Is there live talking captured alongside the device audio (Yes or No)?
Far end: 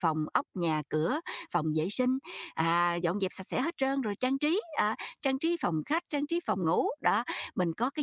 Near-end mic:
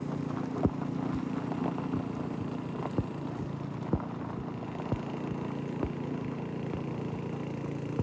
No